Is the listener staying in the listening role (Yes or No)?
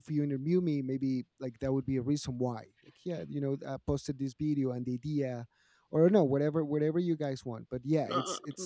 No